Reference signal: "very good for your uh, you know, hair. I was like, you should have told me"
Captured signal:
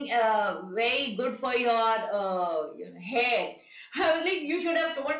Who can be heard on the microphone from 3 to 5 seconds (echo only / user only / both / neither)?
echo only